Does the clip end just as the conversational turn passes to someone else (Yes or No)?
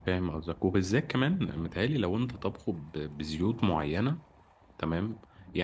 No